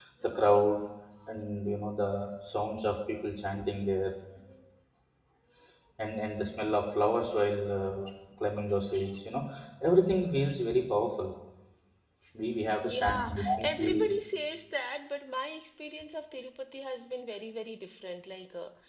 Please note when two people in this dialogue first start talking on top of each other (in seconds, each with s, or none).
12.8 s